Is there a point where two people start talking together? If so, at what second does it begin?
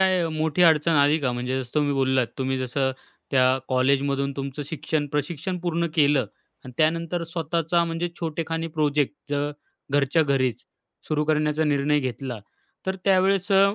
none

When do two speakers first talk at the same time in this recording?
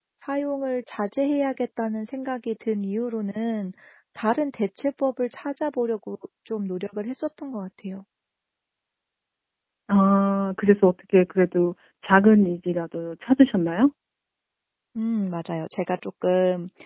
none

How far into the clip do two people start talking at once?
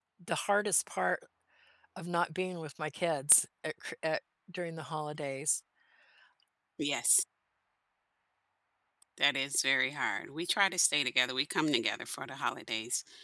none

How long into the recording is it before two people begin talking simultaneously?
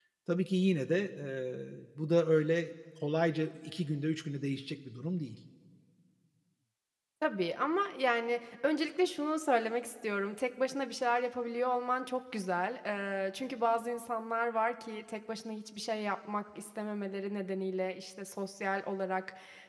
none

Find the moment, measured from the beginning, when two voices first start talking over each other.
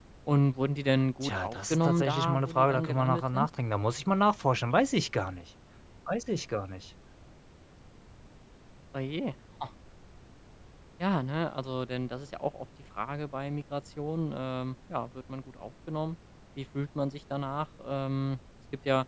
1.2 s

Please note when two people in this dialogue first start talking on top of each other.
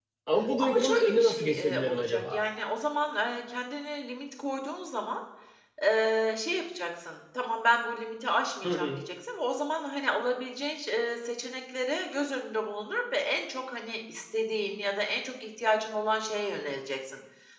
0.6 s

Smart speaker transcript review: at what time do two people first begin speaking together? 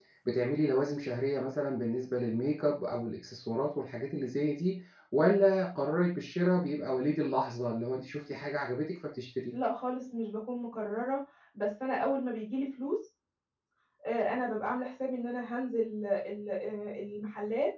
none

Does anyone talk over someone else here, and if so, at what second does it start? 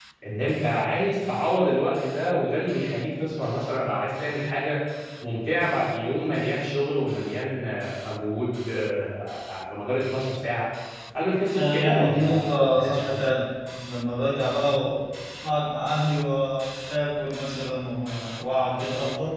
11.5 s

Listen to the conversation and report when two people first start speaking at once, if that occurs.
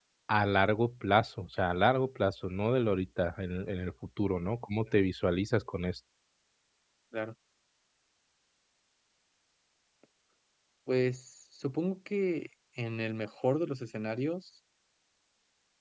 none

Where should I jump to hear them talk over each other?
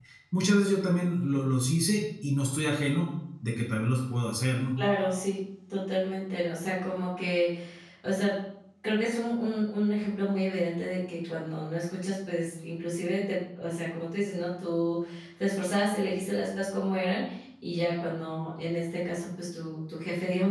none

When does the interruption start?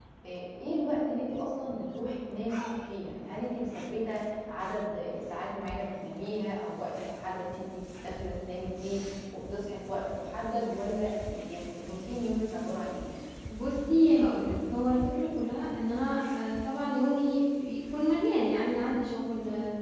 none

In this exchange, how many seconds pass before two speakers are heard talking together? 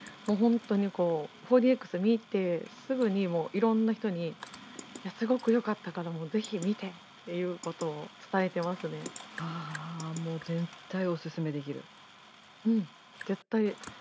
none

